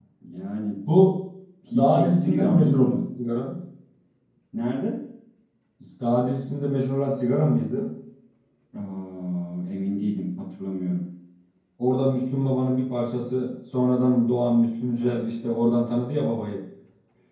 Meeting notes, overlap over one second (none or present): present